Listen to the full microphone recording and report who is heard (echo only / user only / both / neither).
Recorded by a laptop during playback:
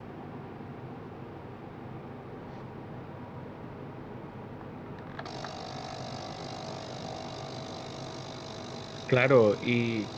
user only